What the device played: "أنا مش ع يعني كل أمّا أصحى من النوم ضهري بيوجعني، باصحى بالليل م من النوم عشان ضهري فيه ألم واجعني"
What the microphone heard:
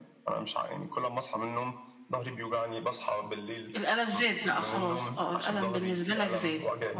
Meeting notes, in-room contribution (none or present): present